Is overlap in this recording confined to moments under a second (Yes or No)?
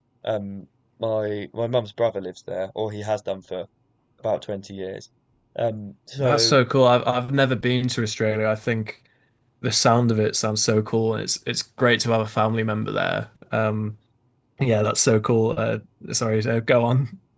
Yes